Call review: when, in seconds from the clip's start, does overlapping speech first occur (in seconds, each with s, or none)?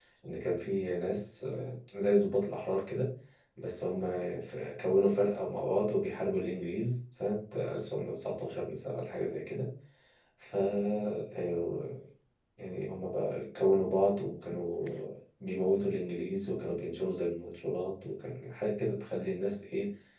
none